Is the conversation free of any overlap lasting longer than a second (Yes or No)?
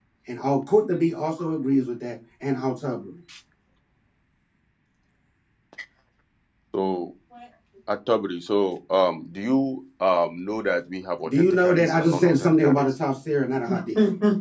No